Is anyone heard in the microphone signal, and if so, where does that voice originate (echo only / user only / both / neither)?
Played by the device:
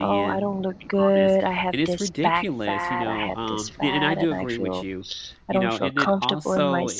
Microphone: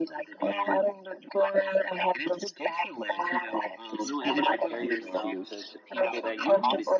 both